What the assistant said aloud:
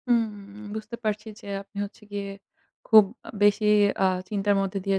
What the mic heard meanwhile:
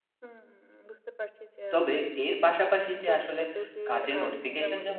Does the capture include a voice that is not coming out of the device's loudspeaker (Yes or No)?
Yes